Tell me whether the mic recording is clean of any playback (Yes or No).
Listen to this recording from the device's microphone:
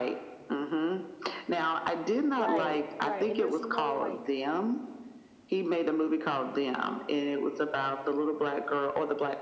No